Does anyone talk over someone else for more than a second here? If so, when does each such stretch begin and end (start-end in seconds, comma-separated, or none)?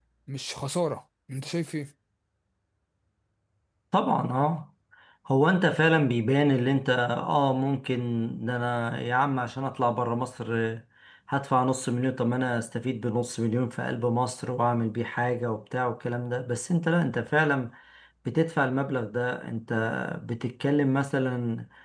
none